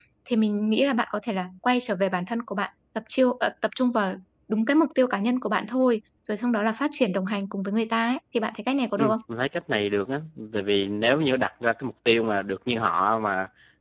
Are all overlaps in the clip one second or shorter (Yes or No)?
Yes